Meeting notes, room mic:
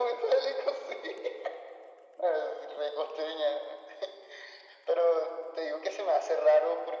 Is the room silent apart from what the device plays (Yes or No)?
Yes